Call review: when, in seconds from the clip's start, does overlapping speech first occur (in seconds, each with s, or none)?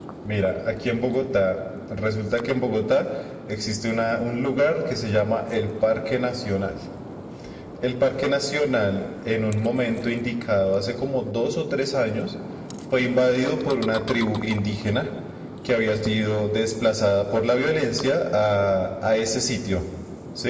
none